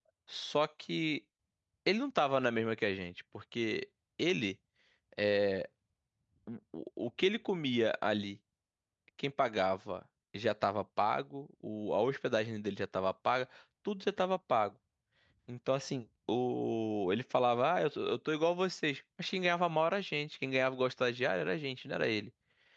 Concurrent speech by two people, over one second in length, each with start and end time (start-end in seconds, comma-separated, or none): none